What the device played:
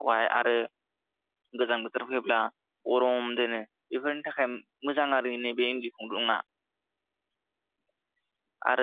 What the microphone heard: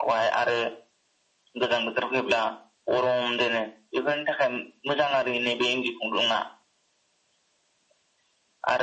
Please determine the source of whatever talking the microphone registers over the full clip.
echo only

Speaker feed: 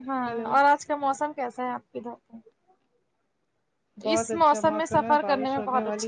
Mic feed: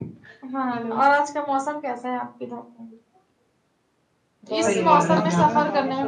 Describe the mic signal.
both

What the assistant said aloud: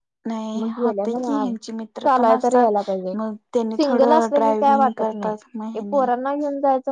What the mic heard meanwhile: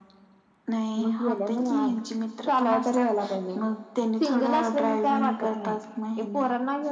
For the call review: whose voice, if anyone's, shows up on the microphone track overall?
echo only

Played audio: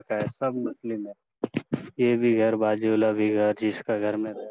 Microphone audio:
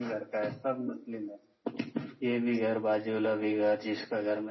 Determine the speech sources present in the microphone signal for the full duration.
echo only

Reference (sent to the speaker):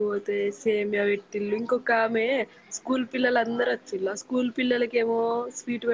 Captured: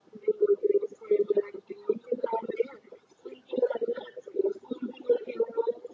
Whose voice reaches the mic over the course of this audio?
echo only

